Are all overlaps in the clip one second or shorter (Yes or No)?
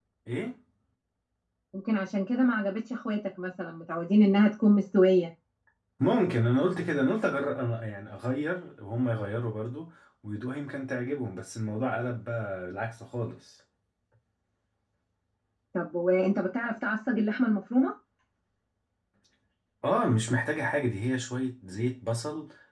Yes